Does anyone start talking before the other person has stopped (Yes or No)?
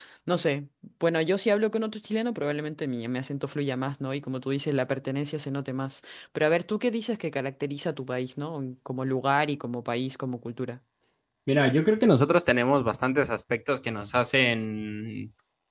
No